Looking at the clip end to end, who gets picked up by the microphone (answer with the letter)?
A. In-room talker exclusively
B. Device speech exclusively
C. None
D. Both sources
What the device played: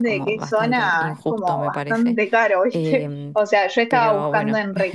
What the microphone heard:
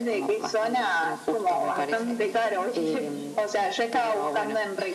D